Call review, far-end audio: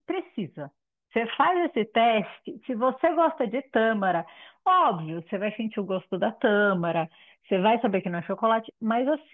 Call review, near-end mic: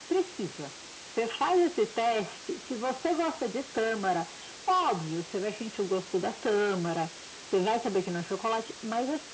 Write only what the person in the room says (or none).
none